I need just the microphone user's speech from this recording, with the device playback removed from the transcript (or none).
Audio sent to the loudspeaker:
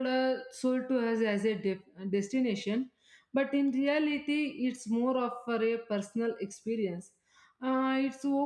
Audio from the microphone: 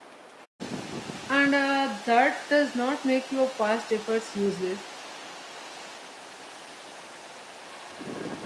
And uh, that does not make your past efforts useless.